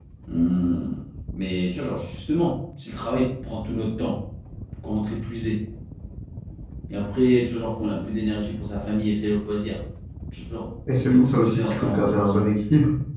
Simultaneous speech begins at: 11 s

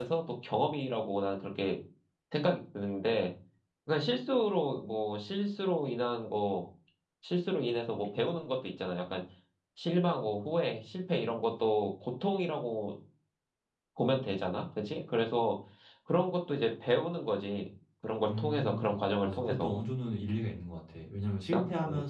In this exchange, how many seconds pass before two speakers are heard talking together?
18 s

